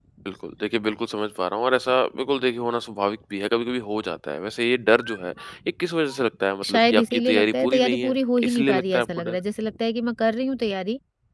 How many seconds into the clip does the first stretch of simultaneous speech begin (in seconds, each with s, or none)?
6.6 s